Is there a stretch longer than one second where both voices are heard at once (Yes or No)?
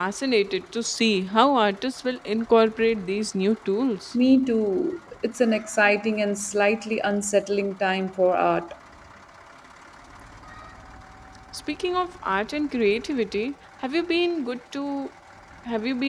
No